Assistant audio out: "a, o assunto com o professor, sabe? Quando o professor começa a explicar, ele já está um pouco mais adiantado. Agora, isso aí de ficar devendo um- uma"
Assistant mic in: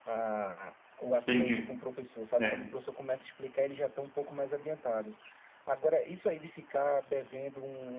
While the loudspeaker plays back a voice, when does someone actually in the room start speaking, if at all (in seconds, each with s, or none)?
1.3 s